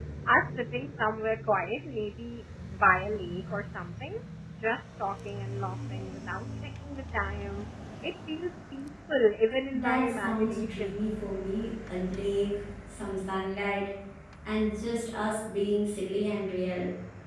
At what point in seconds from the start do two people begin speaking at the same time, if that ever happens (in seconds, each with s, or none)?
9.7 s